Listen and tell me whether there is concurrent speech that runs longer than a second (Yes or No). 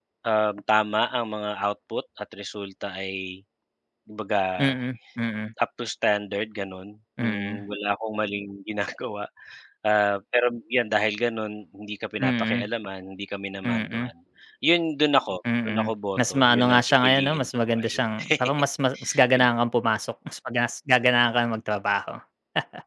Yes